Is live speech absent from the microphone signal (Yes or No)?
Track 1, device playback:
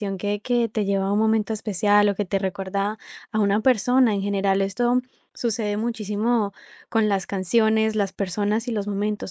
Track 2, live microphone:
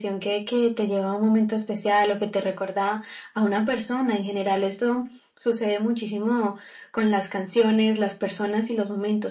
Yes